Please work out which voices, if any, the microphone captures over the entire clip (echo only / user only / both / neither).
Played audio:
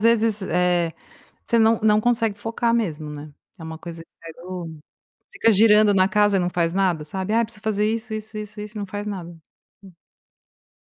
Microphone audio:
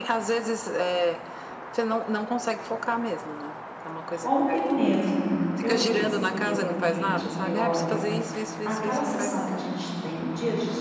both